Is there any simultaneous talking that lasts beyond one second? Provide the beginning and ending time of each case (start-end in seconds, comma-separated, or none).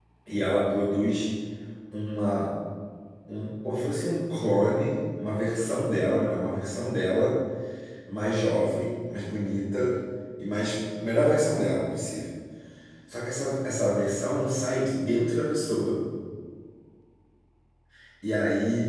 none